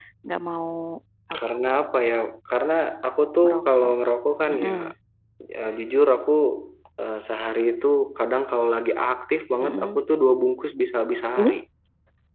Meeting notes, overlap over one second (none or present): none